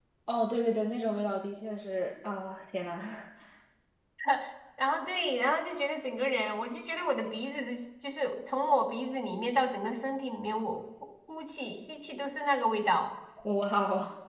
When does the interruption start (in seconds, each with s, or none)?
none